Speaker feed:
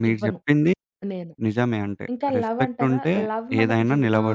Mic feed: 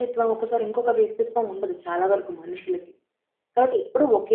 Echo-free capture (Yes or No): Yes